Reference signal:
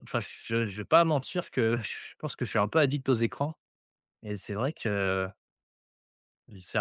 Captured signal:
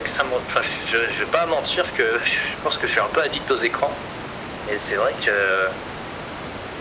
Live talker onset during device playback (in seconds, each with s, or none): none